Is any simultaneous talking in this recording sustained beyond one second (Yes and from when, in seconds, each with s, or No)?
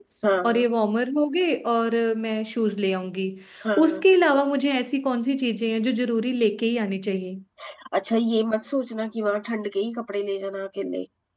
No